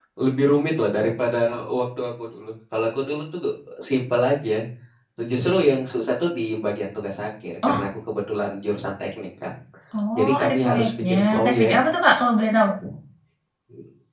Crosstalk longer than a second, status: present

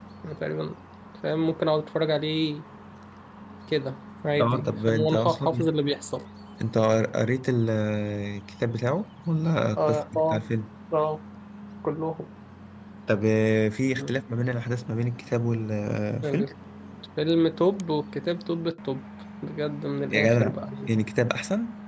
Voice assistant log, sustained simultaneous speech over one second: present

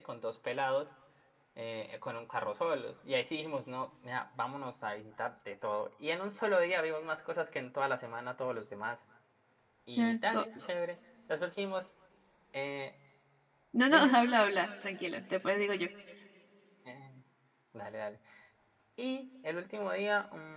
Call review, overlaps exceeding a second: none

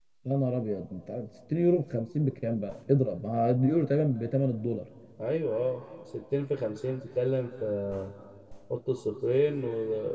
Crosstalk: none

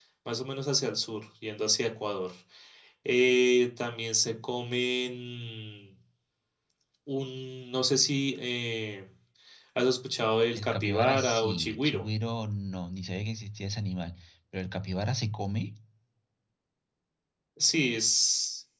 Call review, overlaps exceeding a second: present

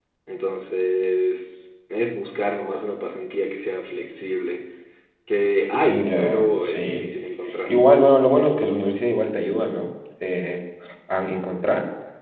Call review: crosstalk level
present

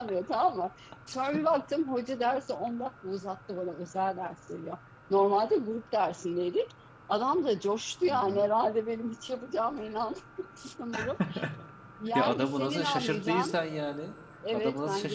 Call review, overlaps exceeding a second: present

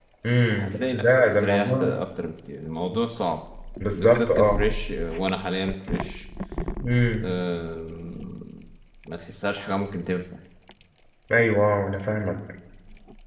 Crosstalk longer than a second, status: present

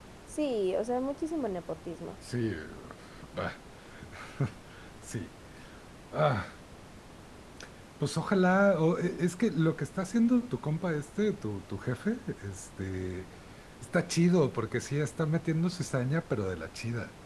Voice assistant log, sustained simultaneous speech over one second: none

